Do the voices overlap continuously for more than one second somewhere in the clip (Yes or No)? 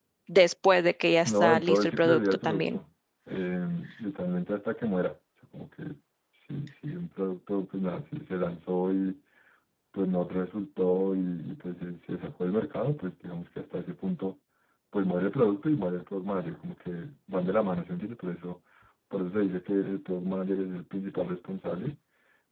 Yes